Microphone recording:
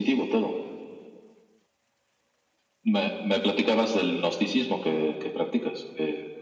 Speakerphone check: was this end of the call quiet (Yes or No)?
Yes